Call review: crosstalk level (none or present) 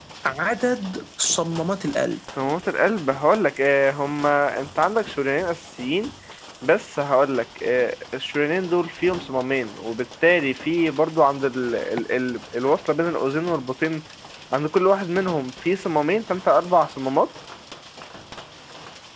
none